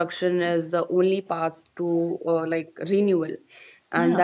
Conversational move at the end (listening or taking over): listening